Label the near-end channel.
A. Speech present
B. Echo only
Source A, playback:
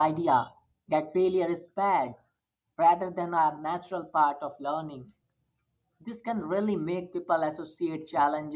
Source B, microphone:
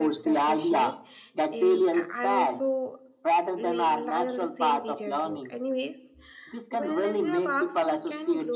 A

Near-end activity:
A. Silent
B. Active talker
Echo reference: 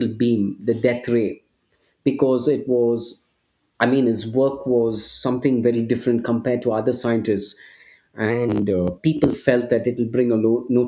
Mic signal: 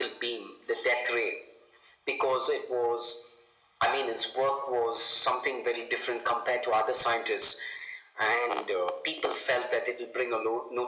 A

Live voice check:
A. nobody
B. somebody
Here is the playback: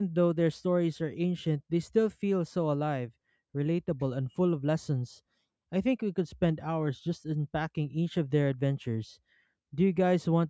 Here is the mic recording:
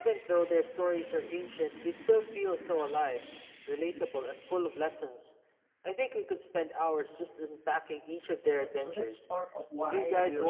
B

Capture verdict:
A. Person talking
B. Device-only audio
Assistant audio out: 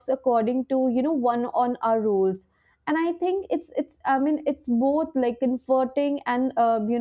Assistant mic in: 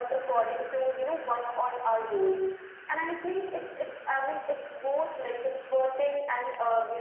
B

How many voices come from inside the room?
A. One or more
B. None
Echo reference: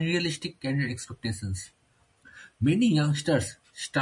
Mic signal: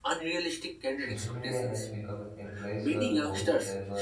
A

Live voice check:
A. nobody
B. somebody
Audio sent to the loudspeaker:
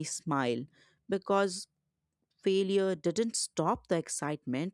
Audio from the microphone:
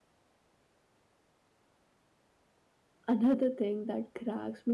B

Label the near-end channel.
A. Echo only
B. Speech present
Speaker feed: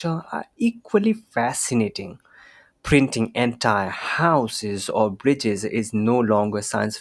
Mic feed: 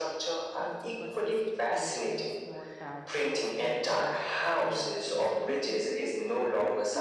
B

